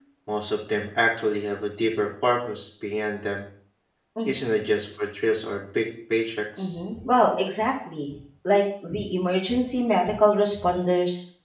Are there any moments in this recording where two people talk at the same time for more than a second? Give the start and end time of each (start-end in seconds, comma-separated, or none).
none